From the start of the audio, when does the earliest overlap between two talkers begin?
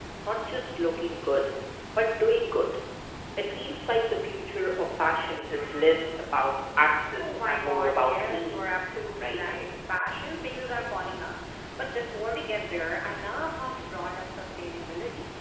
7.2 s

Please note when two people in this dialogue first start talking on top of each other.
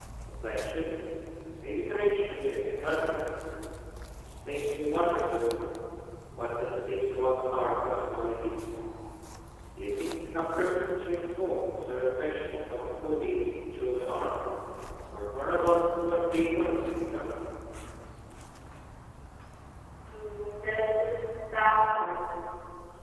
none

